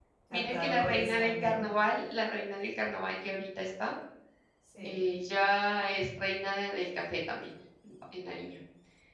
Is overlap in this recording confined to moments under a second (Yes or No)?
No